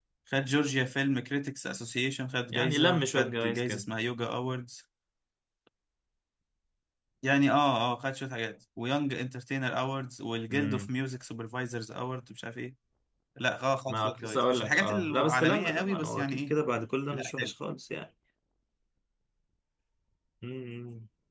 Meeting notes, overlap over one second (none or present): present